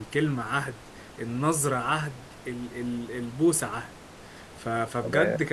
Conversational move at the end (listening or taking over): listening